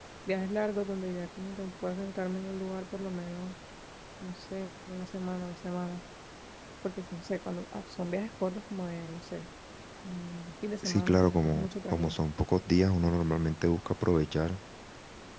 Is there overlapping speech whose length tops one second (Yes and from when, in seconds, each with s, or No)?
Yes, from 10.8 s